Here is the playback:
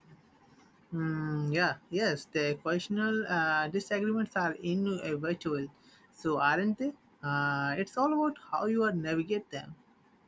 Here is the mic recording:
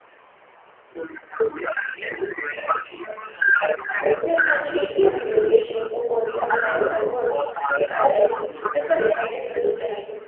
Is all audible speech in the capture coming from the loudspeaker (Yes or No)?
No